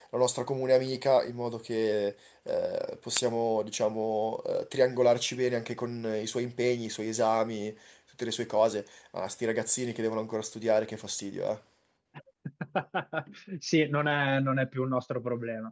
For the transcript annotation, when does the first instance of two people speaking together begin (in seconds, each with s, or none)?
none